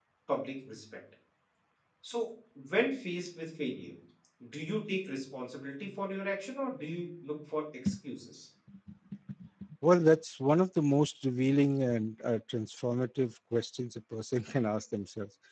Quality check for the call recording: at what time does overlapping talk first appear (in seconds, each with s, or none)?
none